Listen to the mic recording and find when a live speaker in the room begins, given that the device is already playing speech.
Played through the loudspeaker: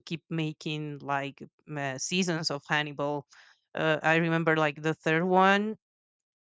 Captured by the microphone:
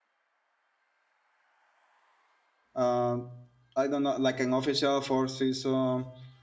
3 s

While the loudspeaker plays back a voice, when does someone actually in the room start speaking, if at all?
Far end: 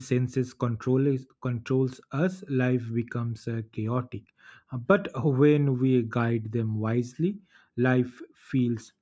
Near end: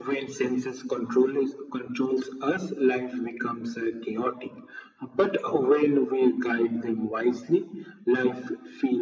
none

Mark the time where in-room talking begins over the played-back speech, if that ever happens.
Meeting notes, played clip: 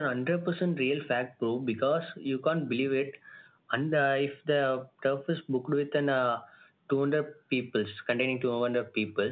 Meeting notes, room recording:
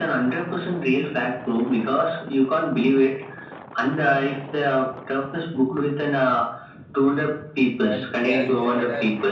8 s

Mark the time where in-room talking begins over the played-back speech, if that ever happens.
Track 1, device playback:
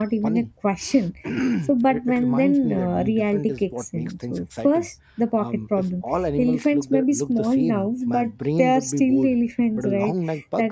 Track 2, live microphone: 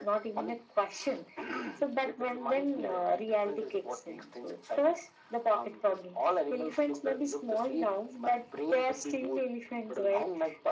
none

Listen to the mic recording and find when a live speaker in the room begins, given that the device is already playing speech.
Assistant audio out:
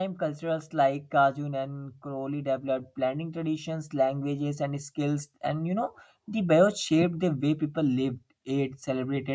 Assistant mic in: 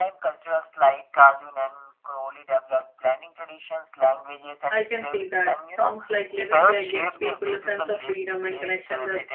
5 s

